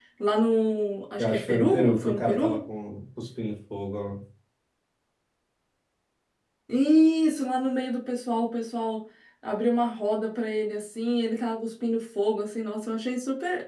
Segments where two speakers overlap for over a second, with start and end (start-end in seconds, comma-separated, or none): 1.2-2.6